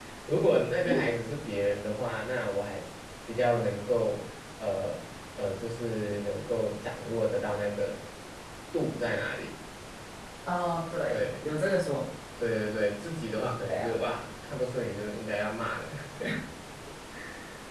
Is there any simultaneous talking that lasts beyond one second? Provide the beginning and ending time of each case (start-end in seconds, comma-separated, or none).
none